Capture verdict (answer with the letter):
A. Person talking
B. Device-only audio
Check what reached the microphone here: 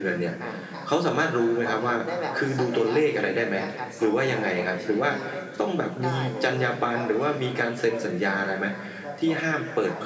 A